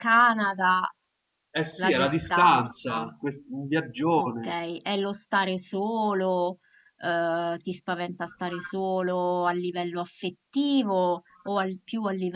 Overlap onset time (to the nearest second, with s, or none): 2 s